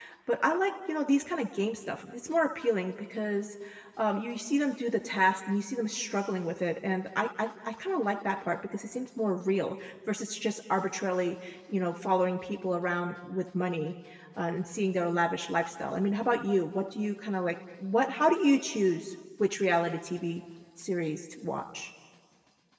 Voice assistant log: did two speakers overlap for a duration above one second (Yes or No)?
No